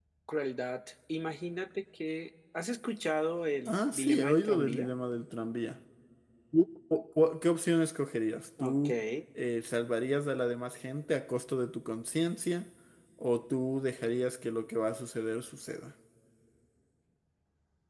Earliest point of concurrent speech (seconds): 4 s

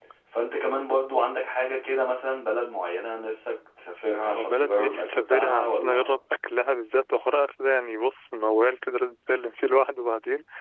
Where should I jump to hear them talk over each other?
4 s

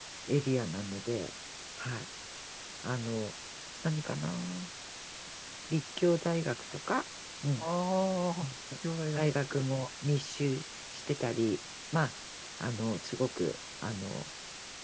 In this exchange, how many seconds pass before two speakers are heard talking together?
none

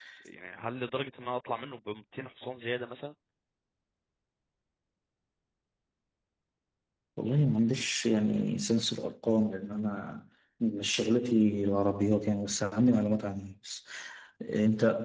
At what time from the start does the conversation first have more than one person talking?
none

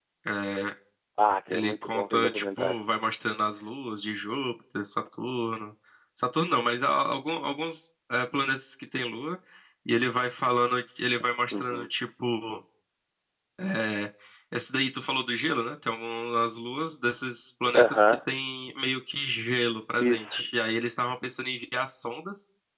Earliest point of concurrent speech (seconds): 1 s

